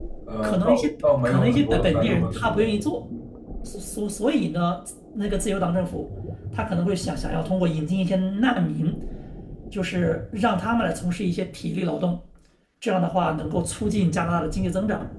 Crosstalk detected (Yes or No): Yes